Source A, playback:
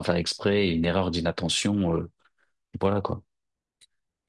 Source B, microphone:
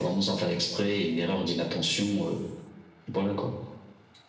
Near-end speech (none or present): none